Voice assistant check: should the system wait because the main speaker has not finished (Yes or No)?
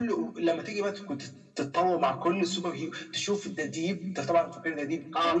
Yes